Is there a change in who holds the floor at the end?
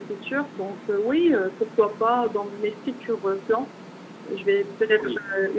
No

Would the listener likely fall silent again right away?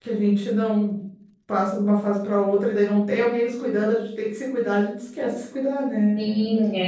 No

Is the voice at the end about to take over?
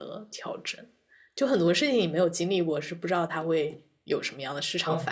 Yes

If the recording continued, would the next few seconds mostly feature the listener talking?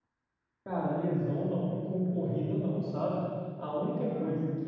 No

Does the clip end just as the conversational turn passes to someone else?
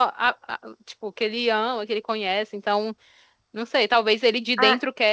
No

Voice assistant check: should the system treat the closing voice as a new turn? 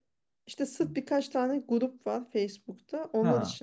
No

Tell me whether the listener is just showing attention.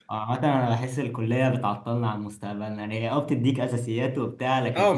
No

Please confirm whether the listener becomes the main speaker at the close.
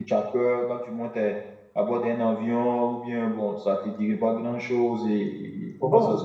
Yes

